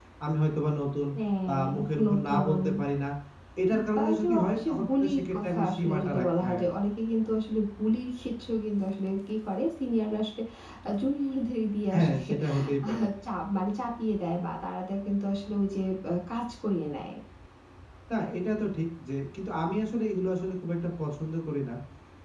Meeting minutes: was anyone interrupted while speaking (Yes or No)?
Yes